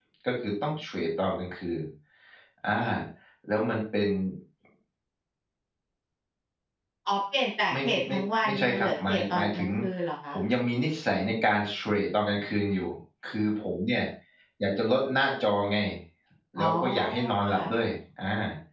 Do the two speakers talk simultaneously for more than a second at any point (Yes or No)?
Yes